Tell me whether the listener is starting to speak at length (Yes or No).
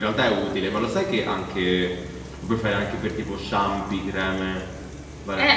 Yes